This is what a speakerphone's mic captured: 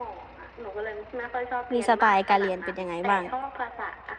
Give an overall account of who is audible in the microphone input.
both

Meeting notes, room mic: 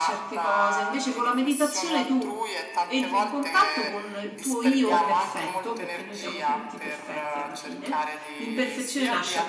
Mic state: both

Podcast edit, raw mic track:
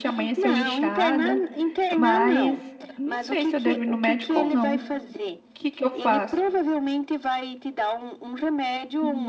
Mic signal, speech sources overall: both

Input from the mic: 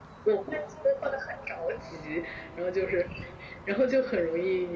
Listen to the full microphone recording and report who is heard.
echo only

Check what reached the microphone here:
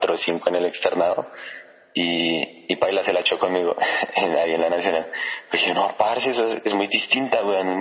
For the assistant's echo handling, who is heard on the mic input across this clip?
echo only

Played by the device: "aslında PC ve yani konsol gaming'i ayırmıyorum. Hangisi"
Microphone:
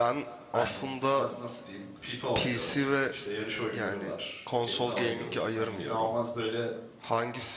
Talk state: both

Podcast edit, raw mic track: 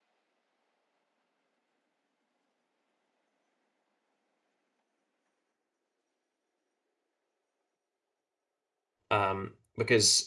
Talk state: user only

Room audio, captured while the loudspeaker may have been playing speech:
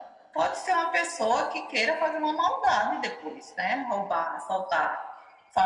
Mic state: echo only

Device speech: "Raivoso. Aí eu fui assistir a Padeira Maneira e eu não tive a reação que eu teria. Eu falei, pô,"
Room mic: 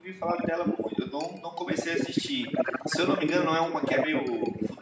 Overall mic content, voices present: both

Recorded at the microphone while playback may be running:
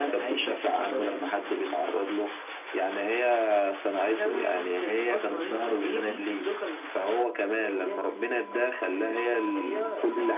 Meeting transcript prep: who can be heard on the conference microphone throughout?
echo only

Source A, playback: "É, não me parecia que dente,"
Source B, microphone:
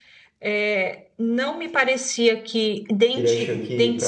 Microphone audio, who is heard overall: both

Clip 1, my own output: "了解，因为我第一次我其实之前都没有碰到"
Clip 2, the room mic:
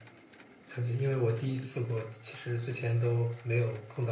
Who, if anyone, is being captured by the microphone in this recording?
echo only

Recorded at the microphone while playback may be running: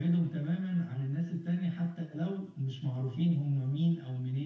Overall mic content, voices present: echo only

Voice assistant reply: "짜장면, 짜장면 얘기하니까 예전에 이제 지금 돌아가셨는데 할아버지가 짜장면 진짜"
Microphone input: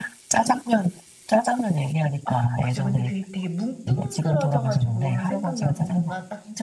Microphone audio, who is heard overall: both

